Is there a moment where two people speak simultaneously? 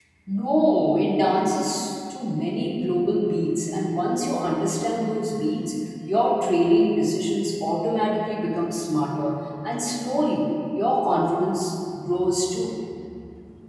No

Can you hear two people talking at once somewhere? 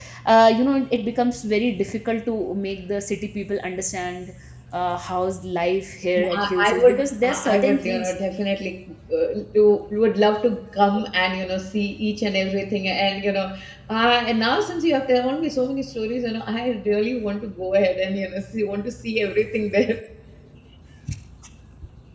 Yes, from 6.2 s

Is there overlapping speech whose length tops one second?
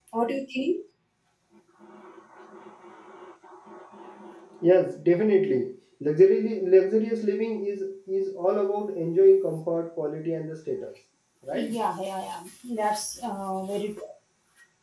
No

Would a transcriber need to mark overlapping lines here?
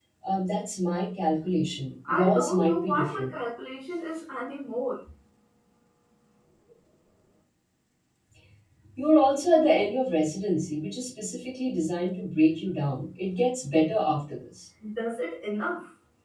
Yes, from 2.0 s

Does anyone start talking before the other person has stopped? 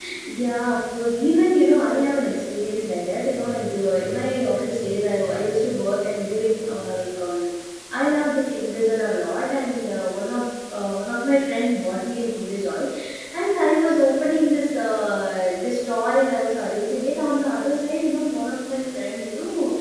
No

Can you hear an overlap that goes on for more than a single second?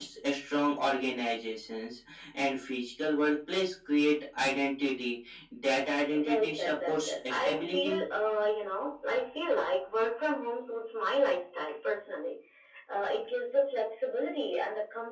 Yes, from 6.0 s

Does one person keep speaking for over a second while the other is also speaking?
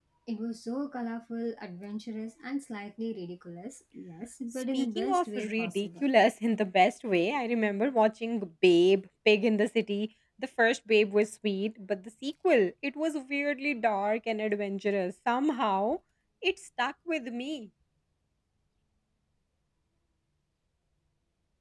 Yes, from 4.5 s

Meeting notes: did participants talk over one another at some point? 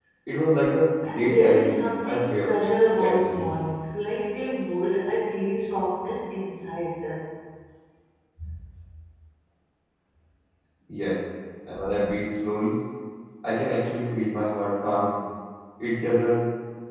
Yes, from 1.0 s

